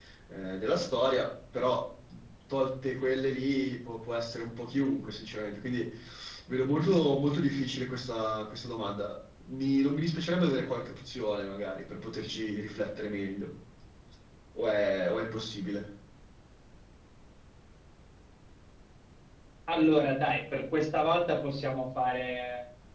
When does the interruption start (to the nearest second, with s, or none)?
none